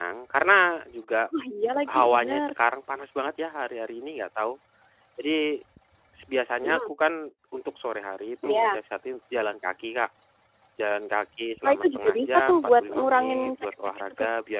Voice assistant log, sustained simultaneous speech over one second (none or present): present